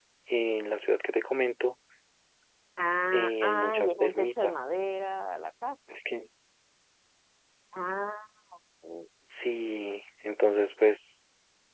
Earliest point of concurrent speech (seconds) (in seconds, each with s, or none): 3.1 s